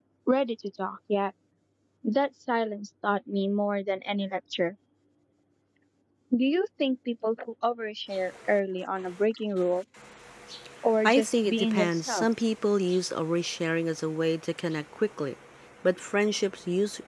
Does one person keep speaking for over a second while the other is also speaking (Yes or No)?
Yes